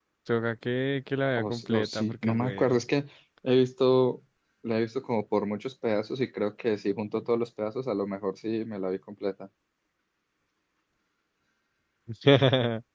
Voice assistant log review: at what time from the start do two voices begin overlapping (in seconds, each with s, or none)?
1.4 s